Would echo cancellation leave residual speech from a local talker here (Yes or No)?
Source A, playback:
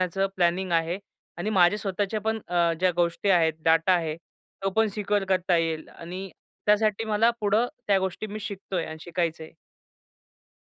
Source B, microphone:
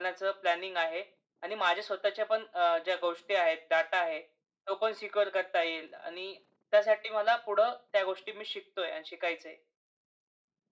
No